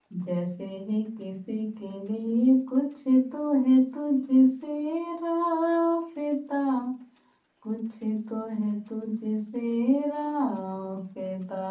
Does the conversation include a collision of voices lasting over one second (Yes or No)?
No